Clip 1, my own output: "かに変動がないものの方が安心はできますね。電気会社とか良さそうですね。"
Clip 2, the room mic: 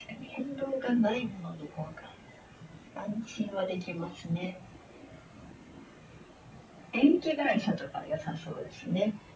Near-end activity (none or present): none